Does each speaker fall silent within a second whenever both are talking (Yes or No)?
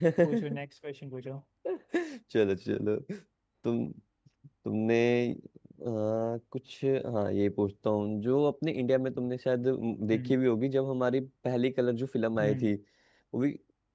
Yes